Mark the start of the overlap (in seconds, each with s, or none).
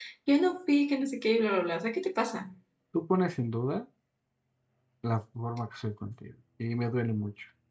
none